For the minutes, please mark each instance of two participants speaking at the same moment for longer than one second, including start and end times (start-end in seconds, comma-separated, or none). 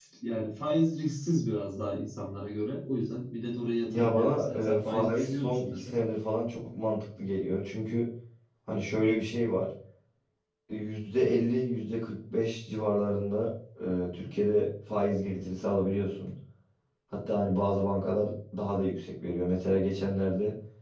3.9-6.0